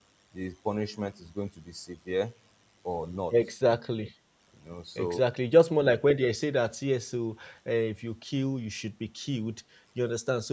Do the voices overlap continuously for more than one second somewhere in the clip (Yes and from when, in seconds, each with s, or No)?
No